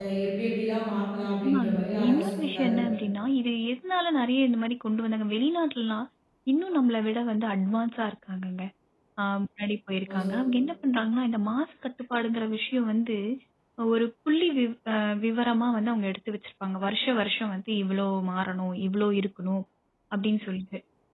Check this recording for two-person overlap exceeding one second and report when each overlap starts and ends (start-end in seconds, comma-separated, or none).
1.4-2.7